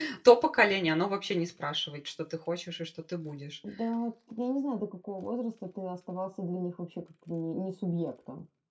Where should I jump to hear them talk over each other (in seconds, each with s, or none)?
none